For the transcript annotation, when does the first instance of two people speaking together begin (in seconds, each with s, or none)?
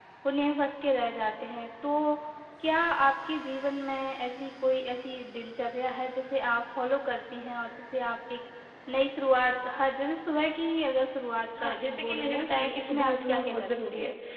11.6 s